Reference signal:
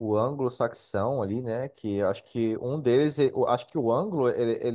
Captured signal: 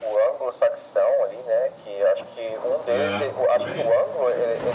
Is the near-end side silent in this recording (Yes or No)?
No